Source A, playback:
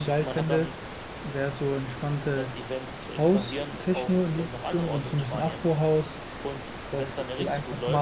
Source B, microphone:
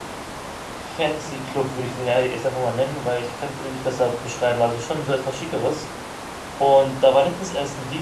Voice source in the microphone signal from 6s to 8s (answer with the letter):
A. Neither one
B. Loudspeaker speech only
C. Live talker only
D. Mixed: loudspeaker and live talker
C